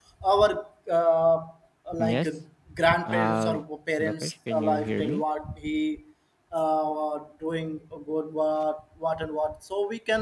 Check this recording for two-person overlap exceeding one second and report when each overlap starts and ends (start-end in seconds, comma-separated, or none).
4.0-5.2